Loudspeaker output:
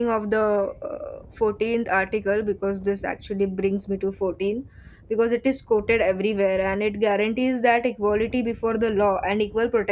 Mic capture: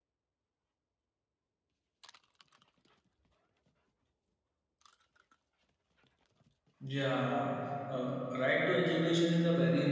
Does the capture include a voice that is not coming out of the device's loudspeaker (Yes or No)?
Yes